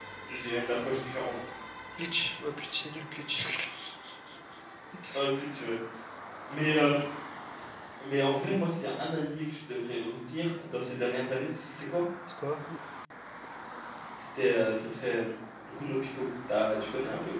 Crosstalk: none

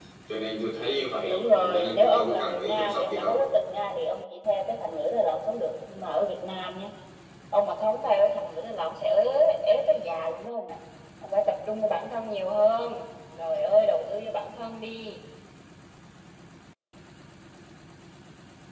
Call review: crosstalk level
present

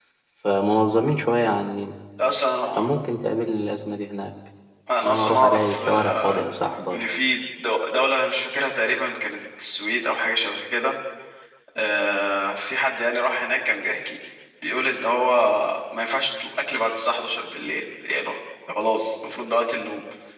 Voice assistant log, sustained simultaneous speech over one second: present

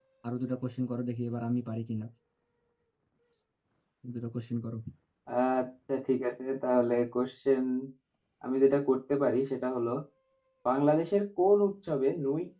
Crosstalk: none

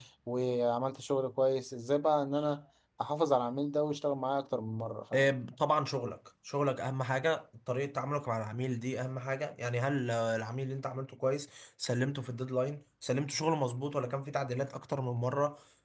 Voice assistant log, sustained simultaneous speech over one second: none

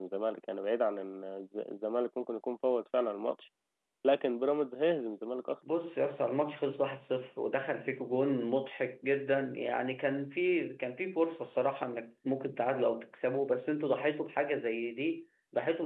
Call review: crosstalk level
none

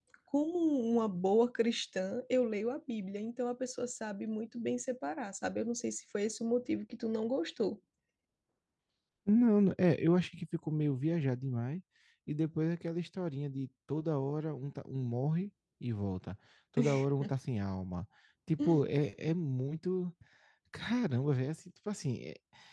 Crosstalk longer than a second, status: none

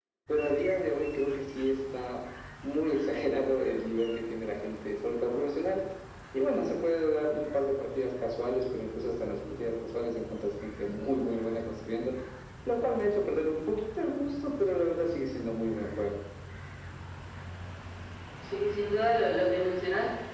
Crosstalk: none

